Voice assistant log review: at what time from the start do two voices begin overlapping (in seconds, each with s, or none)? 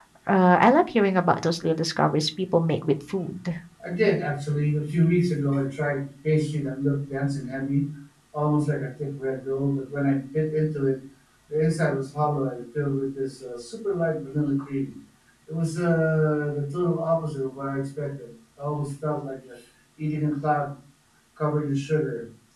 none